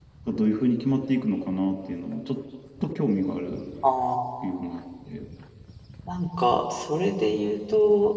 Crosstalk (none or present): none